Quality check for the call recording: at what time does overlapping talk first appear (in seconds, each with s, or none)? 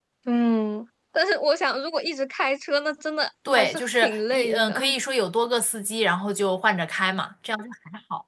3.5 s